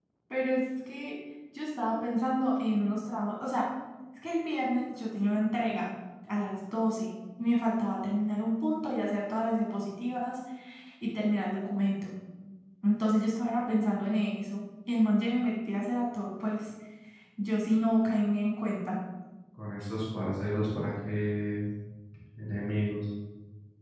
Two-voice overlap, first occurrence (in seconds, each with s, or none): none